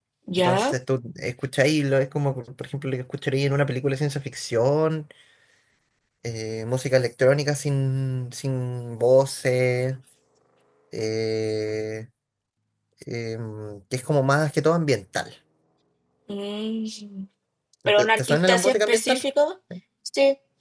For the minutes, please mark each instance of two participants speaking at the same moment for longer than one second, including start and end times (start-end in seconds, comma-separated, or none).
18.0-19.2